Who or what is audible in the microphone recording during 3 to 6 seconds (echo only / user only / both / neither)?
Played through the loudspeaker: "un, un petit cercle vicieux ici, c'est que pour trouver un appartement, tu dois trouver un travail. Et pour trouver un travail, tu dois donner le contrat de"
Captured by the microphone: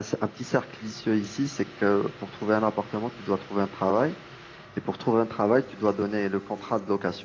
echo only